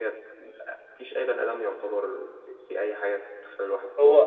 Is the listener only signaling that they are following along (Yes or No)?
No